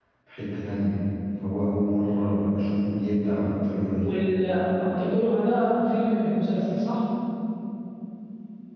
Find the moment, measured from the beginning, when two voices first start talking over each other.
none

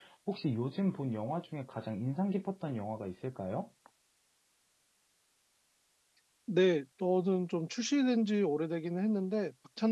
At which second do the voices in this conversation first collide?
none

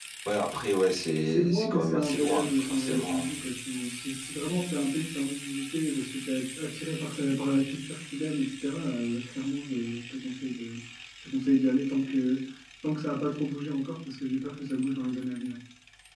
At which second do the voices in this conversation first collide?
1.2 s

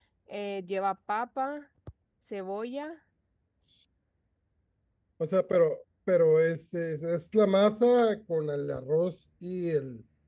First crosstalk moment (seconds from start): none

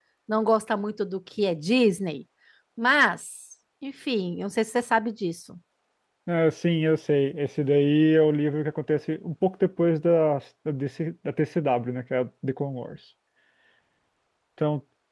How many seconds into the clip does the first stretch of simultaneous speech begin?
none

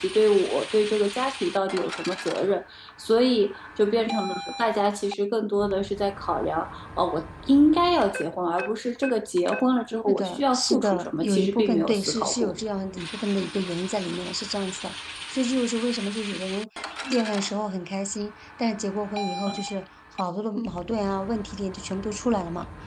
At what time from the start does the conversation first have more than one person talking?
10.1 s

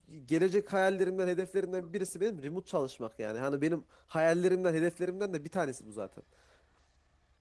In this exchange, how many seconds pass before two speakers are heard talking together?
none

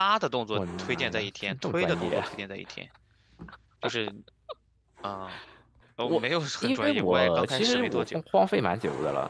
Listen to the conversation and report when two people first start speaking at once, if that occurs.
0.5 s

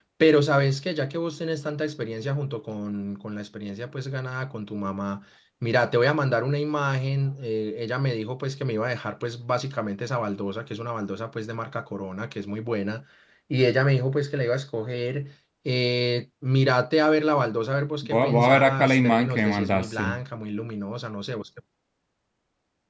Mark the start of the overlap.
18.0 s

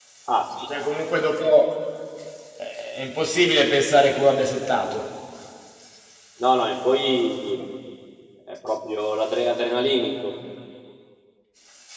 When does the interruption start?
none

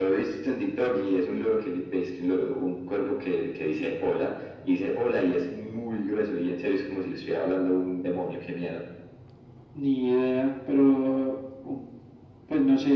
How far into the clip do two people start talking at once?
none

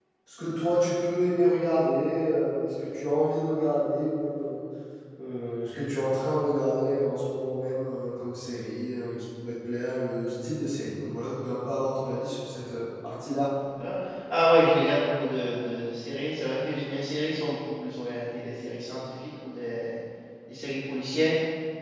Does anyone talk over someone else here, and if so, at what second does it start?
none

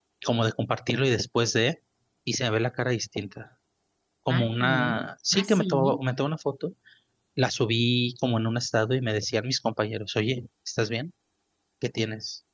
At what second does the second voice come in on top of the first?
4.4 s

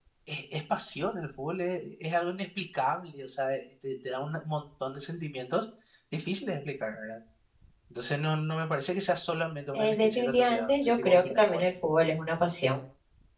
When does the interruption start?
9.7 s

